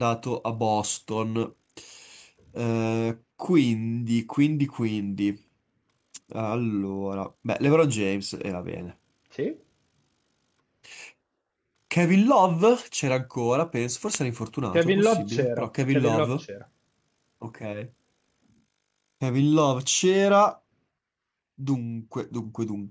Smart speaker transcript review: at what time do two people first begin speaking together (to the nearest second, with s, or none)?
15 s